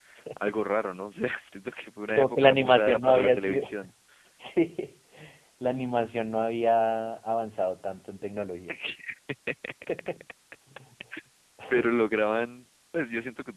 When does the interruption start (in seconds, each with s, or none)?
2.2 s